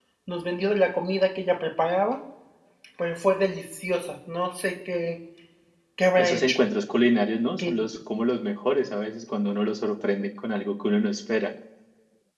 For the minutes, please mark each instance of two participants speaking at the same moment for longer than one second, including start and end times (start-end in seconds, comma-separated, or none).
none